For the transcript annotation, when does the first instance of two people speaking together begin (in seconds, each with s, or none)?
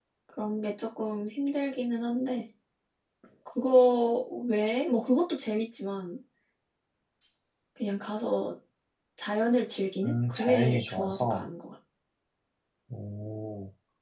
10.0 s